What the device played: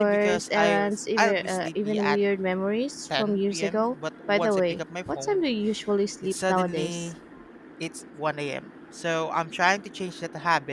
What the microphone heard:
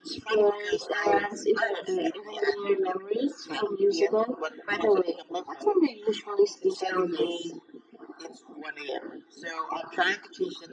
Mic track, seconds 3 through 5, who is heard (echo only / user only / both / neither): echo only